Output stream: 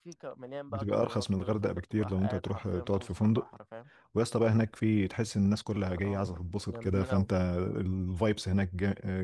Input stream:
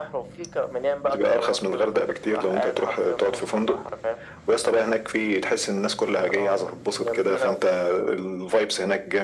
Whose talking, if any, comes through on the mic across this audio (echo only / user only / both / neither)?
echo only